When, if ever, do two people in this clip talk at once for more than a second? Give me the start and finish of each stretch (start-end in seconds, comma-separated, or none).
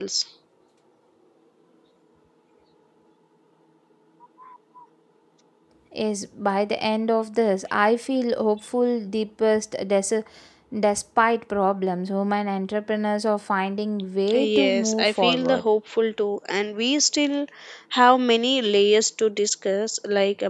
14.3-15.7